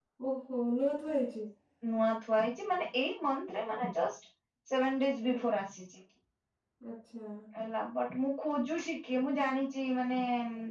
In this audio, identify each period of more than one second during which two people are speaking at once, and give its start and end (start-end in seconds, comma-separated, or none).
none